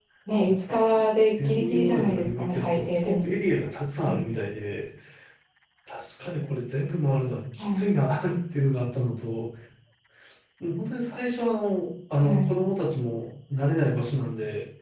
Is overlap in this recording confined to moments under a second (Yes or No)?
No